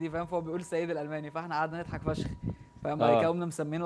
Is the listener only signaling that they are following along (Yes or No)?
Yes